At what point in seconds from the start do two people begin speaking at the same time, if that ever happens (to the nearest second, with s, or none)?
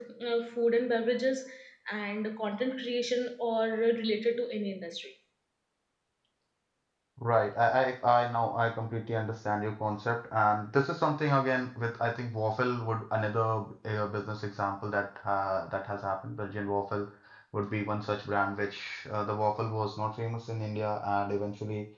none